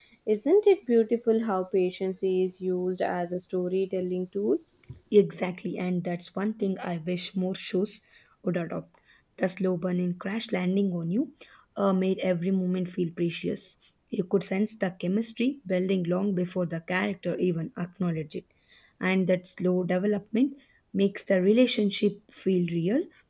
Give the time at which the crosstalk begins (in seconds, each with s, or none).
none